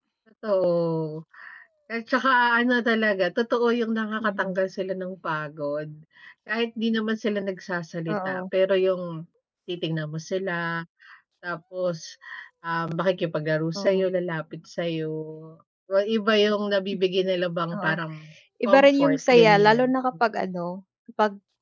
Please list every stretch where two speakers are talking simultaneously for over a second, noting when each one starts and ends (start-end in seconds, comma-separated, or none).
18.6-19.9